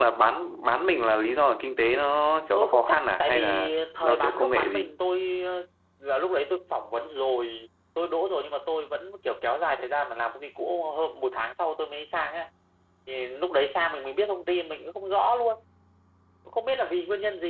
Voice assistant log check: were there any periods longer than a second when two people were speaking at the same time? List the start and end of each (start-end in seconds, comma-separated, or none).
2.6-5.0